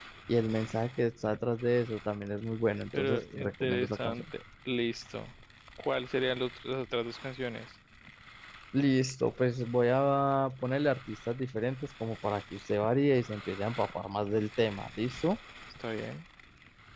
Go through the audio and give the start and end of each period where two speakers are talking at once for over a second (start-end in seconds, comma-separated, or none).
3.0-4.2